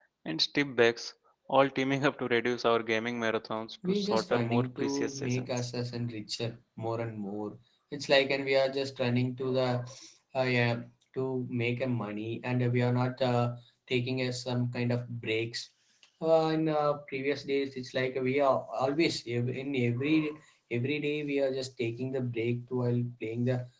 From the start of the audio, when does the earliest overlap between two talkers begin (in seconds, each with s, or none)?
3.8 s